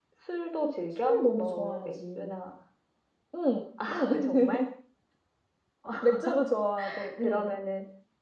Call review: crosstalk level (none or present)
present